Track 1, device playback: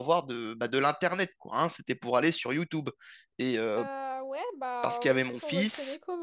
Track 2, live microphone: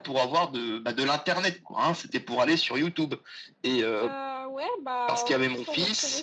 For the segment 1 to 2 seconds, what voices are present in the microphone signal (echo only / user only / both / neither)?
echo only